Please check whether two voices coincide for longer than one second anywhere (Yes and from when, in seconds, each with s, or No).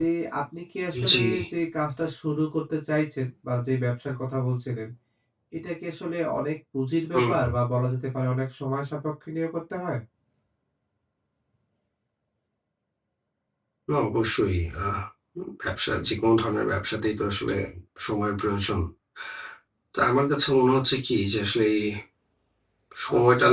No